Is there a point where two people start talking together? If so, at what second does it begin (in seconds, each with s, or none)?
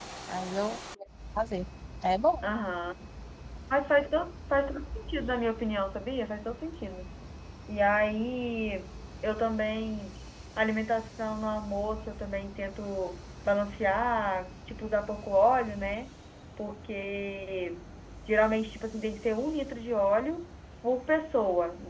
none